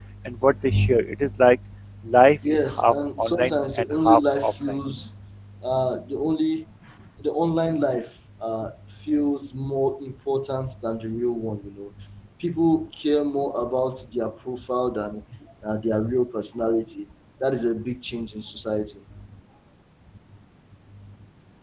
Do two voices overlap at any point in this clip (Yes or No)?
Yes